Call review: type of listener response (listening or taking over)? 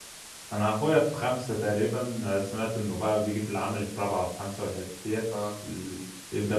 listening